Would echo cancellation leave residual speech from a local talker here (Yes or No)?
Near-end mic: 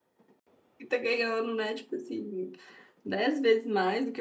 Yes